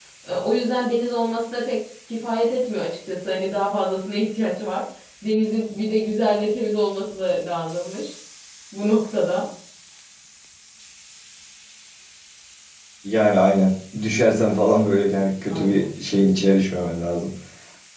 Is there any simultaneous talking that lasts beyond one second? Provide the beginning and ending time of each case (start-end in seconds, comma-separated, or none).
none